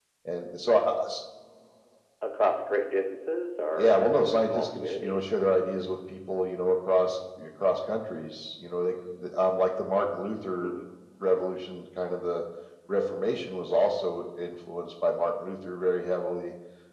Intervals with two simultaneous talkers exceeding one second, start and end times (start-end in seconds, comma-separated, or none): 3.7-5.2